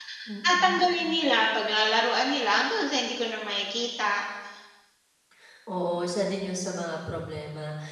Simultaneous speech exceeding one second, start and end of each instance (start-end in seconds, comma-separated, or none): none